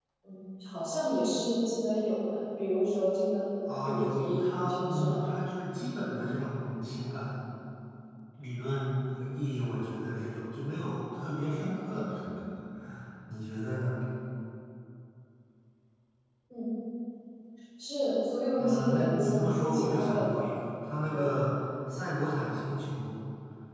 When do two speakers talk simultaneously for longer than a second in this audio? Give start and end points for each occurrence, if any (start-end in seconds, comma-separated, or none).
3.8-5.2, 18.6-20.4